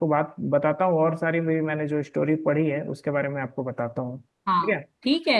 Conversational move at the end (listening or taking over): taking over